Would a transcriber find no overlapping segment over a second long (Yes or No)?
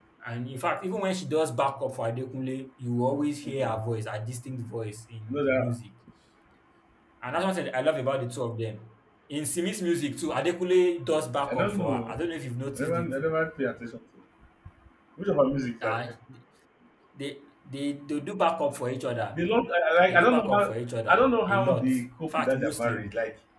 No